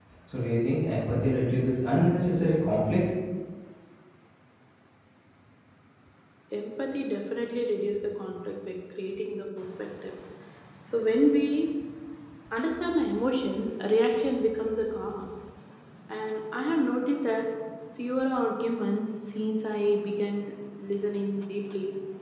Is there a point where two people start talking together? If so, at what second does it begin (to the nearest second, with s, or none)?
none